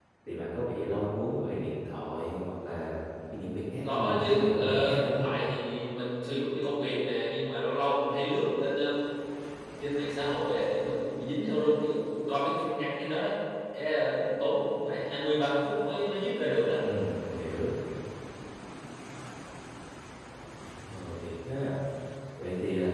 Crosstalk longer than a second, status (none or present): present